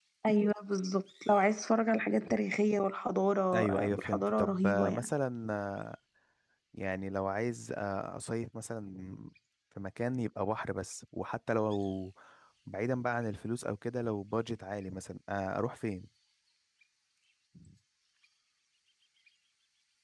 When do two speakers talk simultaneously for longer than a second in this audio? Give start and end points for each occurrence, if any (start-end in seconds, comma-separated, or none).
3.5-5.1